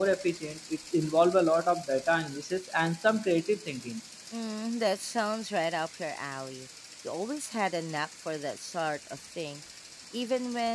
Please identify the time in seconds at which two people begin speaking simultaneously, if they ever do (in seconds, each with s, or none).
none